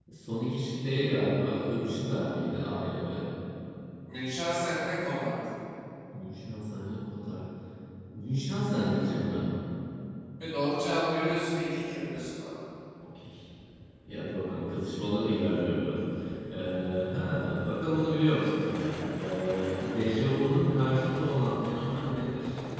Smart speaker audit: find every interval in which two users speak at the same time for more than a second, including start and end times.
none

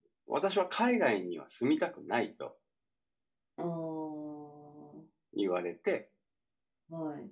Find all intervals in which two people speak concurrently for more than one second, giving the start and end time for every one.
none

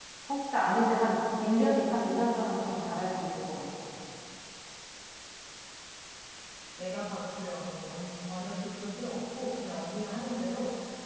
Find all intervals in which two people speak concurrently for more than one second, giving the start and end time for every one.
none

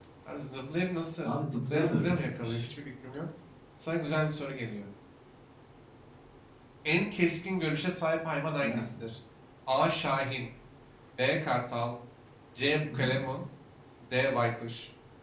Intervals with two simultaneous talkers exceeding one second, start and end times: 1.2-2.6

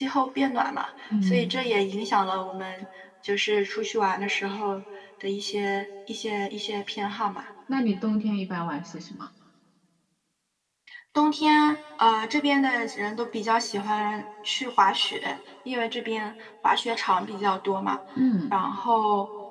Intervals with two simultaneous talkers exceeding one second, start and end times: none

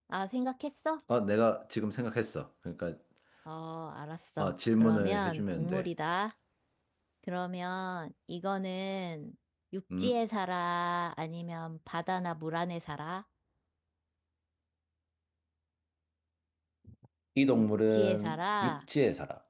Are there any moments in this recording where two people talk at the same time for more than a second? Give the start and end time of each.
4.4-5.9, 17.5-18.8

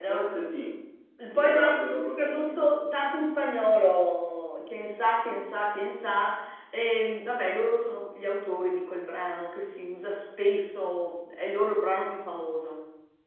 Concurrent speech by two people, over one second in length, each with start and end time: 1.3-2.6

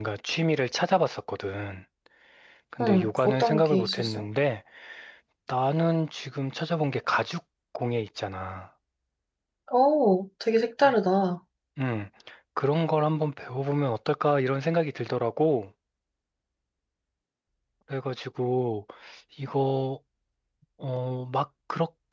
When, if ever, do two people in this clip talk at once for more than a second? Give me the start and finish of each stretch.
2.8-4.2

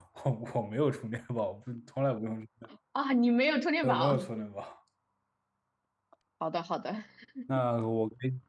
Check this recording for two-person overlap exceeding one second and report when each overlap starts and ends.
none

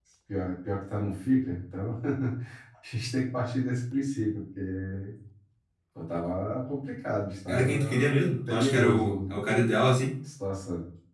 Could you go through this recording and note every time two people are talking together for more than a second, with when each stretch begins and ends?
7.5-9.3

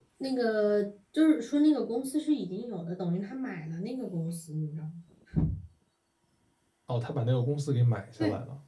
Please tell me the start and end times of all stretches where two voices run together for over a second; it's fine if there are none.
none

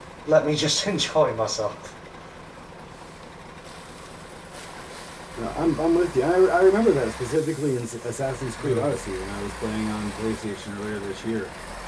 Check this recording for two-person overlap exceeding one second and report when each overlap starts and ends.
none

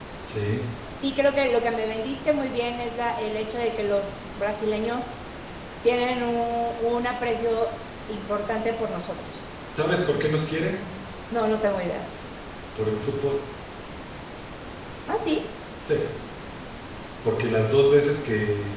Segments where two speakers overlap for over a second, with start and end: none

